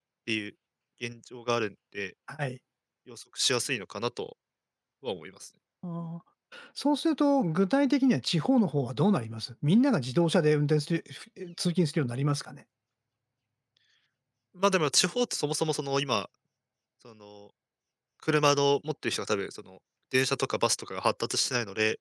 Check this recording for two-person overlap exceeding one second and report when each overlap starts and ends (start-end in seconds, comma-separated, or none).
none